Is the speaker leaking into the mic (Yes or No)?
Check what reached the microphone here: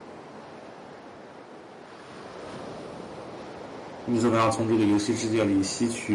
No